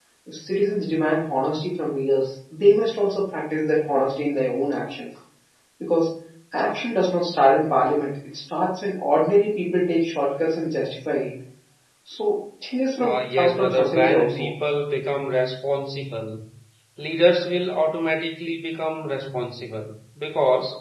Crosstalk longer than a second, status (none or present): present